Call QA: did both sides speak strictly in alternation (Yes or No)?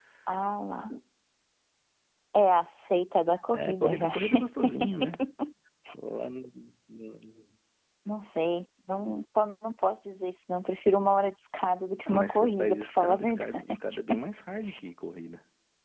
No